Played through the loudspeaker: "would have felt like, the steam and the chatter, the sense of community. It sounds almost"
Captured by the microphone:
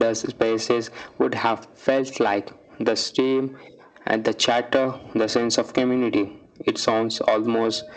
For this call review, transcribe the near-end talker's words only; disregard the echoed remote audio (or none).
none